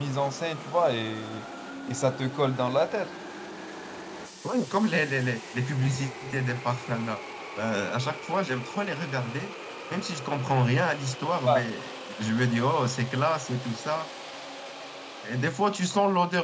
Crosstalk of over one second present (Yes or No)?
No